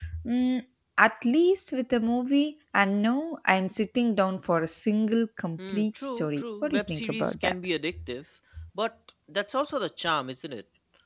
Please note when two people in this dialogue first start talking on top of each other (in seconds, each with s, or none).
5.6 s